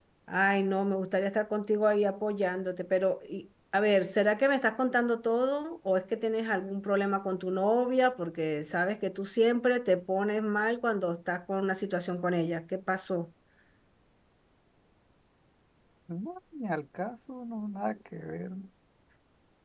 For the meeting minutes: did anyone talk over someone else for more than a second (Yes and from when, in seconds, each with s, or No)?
No